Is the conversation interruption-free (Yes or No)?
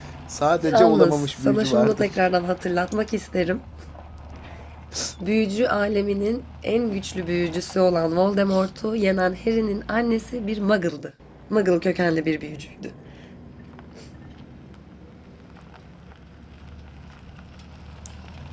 No